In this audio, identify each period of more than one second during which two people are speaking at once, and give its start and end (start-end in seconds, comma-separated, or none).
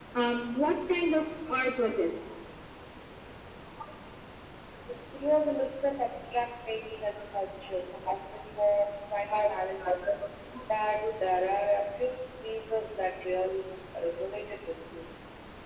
none